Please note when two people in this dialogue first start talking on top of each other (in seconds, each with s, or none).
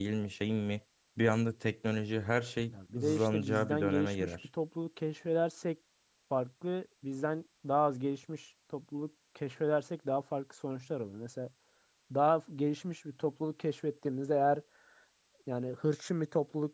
2.7 s